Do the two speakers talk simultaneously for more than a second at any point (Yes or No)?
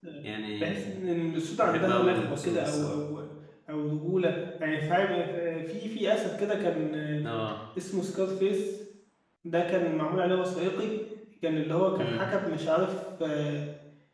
Yes